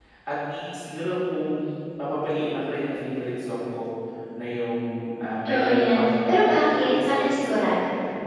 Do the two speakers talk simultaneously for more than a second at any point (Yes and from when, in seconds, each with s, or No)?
Yes, from 5.4 s